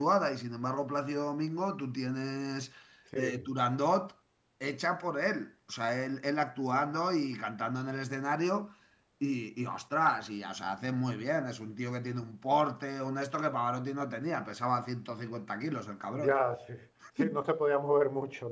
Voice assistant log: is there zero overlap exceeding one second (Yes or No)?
Yes